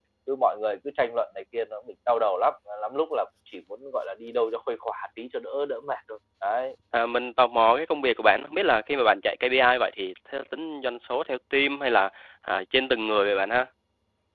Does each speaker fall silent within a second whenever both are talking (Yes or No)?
Yes